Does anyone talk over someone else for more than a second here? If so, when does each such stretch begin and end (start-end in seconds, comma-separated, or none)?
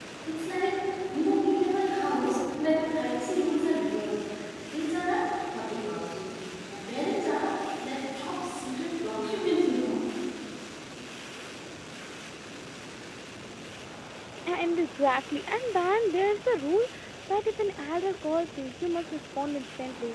none